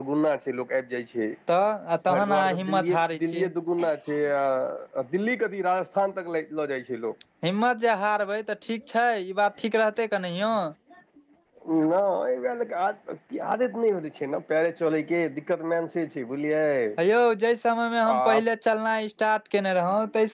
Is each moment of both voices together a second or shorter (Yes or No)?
No